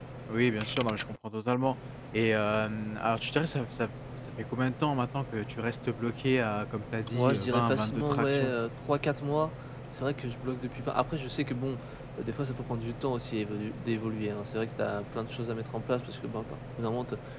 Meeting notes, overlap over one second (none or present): present